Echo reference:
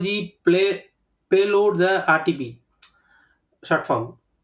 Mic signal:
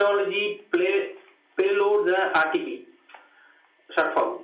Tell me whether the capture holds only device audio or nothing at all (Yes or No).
Yes